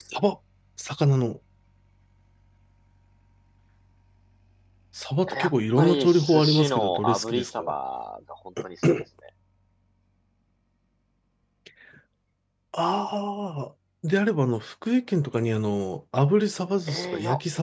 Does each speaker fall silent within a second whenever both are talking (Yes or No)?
No